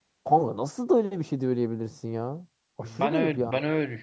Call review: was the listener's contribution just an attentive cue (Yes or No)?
No